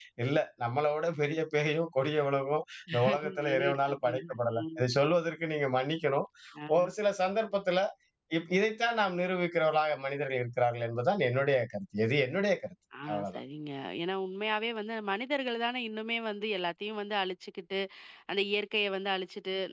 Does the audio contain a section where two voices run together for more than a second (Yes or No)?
Yes